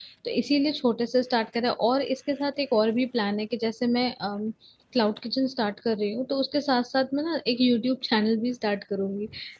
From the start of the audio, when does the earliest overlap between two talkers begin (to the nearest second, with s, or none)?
none